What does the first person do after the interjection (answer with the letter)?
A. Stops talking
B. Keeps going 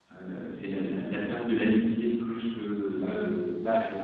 A